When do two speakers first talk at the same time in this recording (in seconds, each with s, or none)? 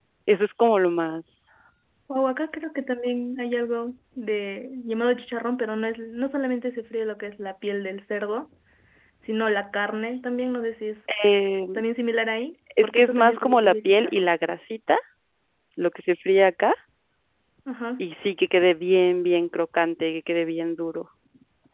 12.7 s